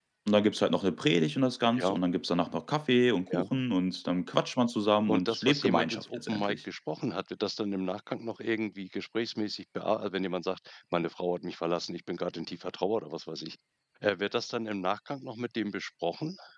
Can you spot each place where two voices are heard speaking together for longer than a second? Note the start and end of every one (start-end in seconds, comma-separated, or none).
5.1-6.6